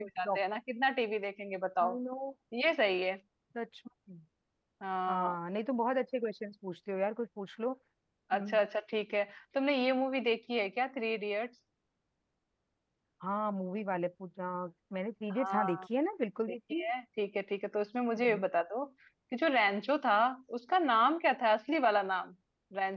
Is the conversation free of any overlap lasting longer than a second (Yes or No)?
Yes